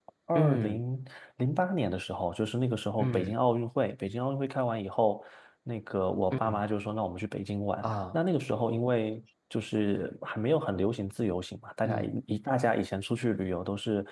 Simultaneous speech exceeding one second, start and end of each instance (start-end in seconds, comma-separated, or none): none